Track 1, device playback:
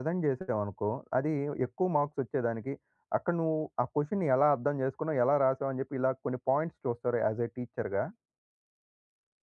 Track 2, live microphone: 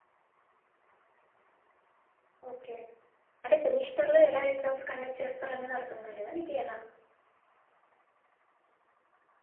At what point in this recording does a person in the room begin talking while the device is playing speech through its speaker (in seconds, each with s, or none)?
2.5 s